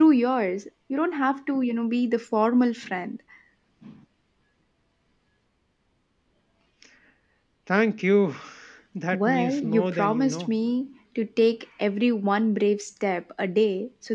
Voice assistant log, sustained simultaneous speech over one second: present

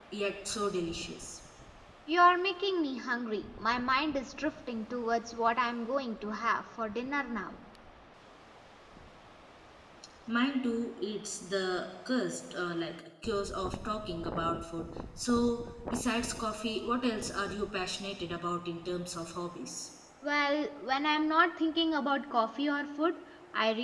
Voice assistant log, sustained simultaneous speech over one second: none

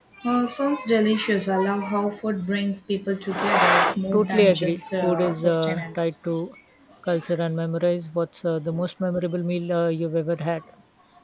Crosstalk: present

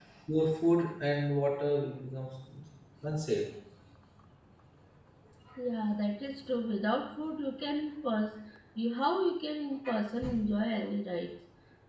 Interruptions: none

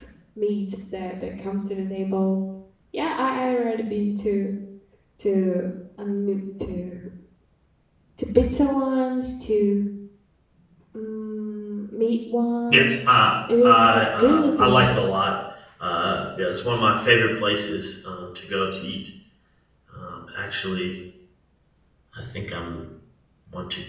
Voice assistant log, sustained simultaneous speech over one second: present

